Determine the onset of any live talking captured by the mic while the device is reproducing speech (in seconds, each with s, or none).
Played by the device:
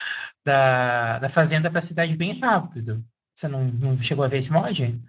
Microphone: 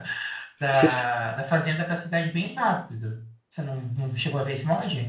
0.7 s